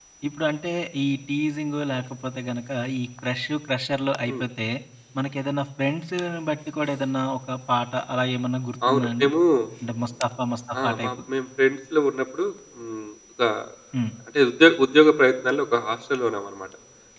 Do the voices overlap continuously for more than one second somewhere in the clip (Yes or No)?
No